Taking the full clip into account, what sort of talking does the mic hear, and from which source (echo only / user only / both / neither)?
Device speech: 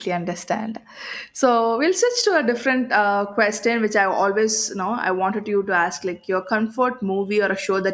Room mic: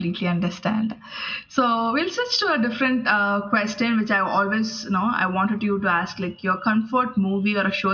echo only